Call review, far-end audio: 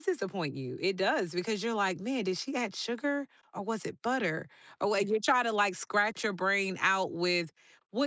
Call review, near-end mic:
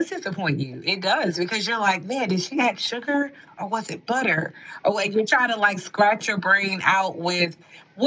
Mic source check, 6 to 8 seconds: echo only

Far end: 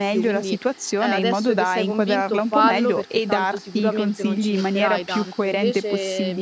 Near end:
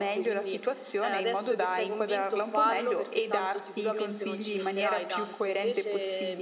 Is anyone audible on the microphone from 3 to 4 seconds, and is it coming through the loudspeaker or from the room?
echo only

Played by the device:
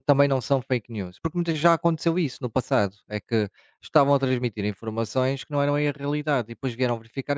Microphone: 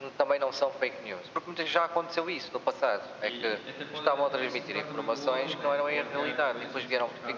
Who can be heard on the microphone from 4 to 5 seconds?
both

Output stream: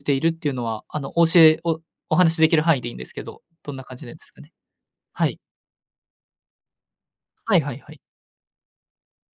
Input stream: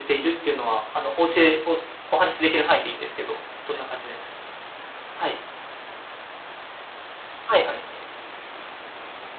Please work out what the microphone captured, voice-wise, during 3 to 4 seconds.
echo only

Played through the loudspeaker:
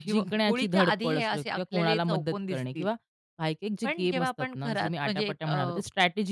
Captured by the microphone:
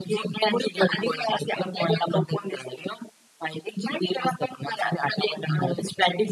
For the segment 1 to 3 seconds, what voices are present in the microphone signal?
echo only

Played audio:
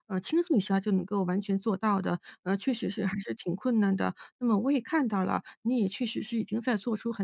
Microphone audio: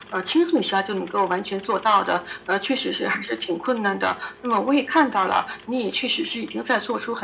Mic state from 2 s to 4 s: echo only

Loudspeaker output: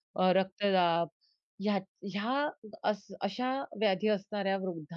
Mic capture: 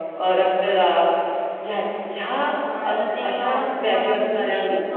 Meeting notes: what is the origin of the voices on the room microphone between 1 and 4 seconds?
both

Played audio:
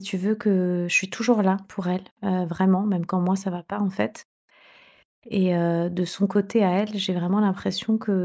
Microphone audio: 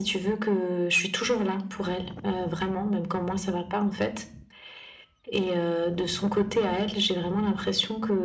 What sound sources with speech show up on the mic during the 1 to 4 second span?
echo only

